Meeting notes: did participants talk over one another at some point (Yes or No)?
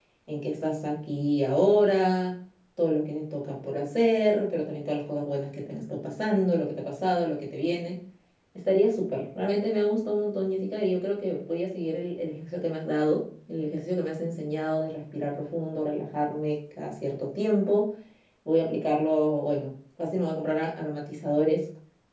No